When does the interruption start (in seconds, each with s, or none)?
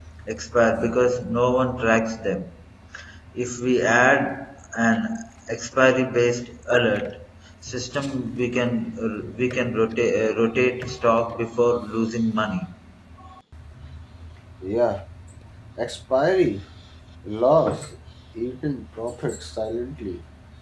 none